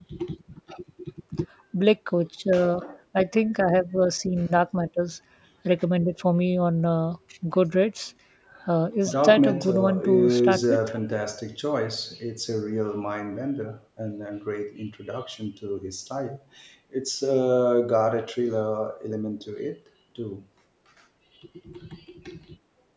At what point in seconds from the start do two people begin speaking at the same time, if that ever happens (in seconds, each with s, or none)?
9.1 s